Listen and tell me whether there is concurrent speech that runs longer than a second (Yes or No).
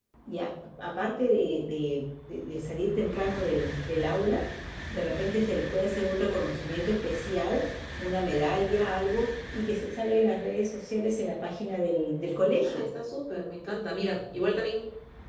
No